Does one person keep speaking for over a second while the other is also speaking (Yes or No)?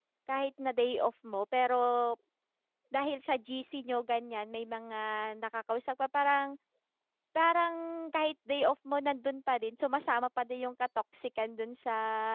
No